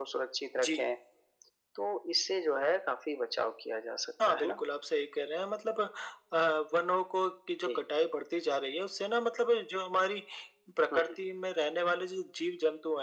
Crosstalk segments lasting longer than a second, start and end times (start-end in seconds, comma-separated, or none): none